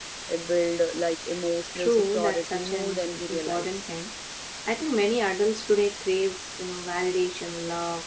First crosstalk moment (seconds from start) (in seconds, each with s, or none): 1.8 s